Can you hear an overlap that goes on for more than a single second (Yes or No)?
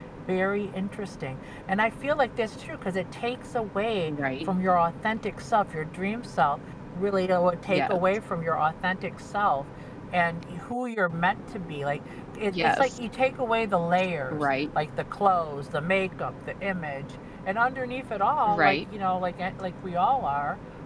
No